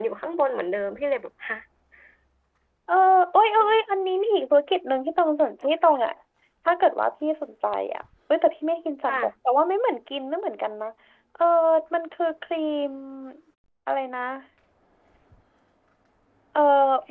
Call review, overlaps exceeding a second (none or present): none